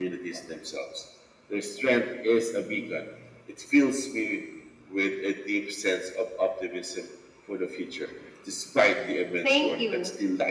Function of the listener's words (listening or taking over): taking over